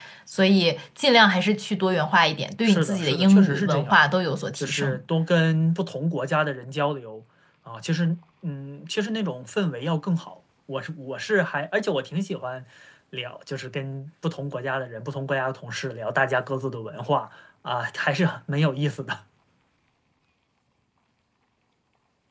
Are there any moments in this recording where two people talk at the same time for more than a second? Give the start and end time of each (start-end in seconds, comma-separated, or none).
2.6-4.0